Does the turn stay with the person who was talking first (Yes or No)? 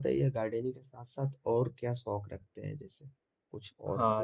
No